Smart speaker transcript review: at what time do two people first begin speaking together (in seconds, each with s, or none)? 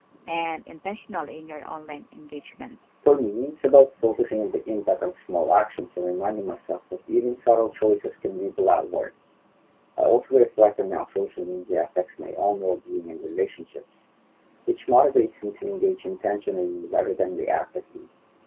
none